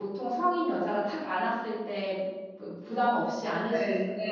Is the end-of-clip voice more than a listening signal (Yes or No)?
Yes